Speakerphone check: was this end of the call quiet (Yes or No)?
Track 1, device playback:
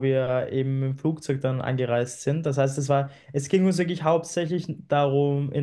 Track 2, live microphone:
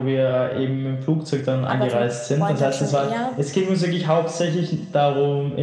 No